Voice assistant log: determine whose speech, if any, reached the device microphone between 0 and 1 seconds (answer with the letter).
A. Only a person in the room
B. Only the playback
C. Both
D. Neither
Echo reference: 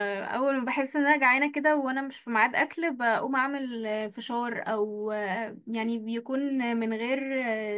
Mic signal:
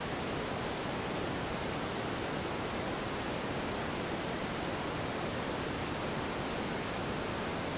D